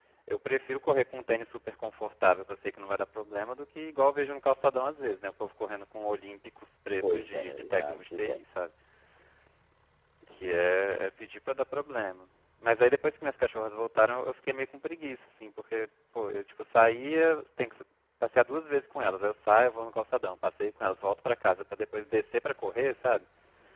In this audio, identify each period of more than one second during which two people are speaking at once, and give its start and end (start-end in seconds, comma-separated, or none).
7.0-8.4